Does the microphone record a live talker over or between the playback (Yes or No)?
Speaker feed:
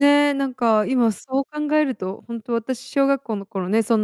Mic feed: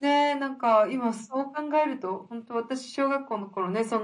No